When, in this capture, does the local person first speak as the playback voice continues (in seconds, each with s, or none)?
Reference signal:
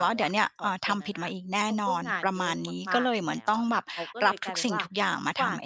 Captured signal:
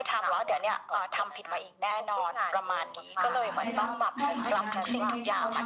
3.2 s